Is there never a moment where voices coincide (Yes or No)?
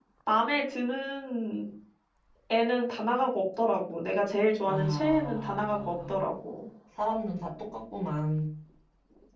No